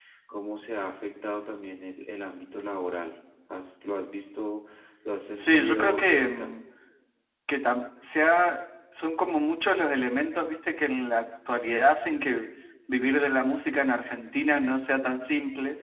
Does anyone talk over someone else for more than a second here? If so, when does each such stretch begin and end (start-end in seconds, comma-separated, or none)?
5.3-6.6